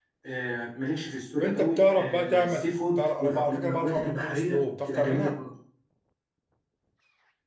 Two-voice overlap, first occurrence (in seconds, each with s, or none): 1.4 s